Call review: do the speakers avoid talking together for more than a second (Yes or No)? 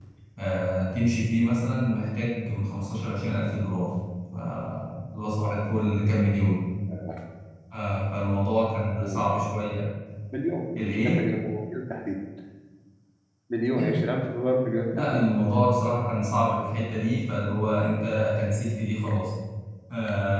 Yes